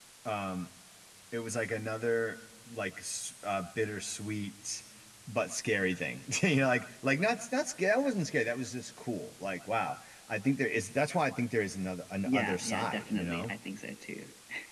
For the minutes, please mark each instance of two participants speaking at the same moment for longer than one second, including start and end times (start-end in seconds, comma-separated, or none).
12.2-13.5